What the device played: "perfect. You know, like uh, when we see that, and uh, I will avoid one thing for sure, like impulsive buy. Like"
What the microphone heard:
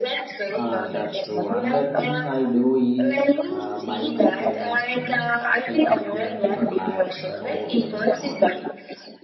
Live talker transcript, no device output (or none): Ah, that's true. Another thing I do is uh, buy my parents, you know, health insurance for life. You know, no second thoughts.